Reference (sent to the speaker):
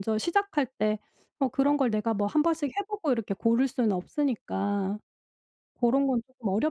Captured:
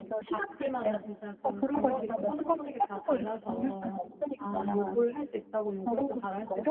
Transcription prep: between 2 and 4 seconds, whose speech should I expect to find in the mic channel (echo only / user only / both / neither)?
both